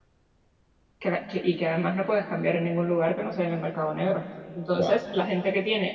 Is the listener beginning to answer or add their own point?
No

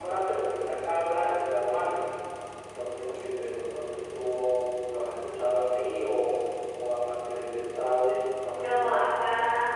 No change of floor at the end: No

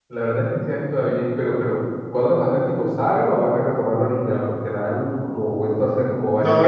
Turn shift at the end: Yes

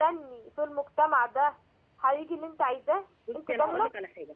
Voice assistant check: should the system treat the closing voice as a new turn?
Yes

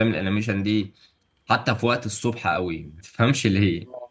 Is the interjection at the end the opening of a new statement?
No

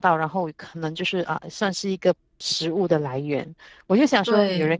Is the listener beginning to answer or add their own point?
No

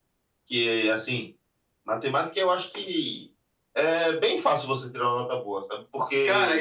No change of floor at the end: No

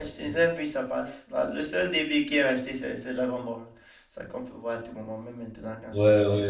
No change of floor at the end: No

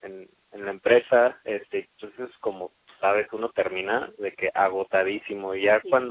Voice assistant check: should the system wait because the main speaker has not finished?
Yes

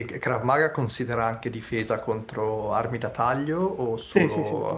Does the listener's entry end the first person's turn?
Yes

